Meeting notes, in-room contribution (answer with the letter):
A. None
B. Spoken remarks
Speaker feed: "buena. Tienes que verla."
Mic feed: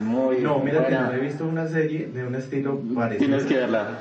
B